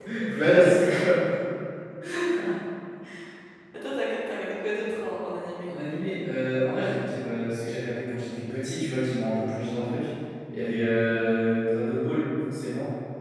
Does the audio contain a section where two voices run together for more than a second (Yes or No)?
No